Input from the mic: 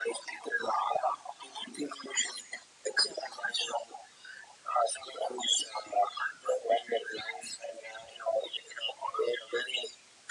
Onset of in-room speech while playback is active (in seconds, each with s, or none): none